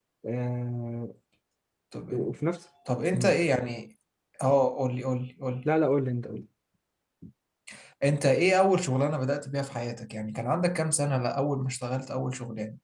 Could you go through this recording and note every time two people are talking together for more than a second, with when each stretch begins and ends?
none

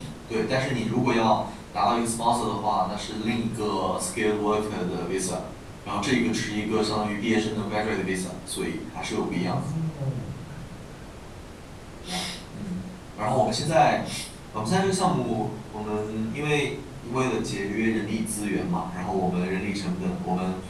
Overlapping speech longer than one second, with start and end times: none

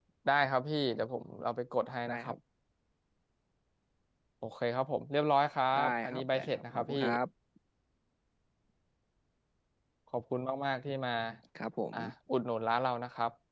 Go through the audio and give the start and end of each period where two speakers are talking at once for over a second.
5.8-7.0

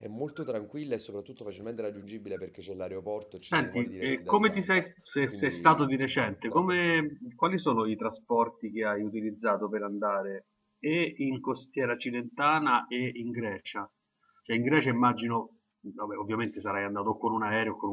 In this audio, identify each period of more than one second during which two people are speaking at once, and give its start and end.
3.5-4.8, 5.3-7.1

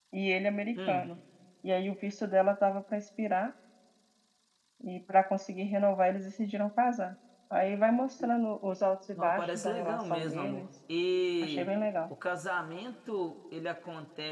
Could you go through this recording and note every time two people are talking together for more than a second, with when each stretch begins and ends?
9.2-10.6

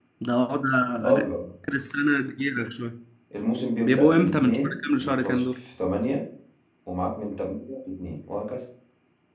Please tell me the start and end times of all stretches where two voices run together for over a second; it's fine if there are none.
3.8-5.4

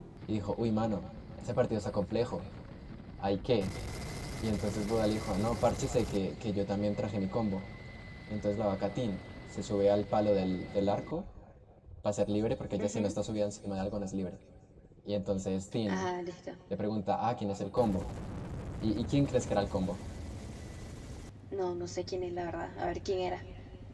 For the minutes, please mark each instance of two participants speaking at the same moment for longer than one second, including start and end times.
none

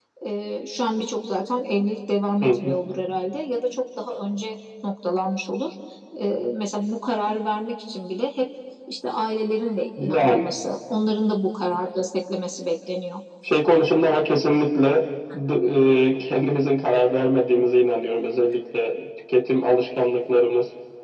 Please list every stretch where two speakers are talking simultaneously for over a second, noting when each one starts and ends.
none

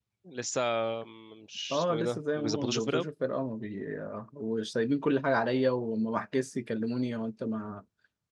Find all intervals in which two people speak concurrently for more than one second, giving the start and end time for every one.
1.7-3.1

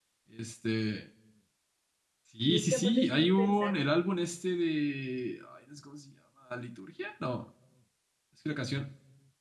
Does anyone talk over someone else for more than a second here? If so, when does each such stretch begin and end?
2.4-4.0

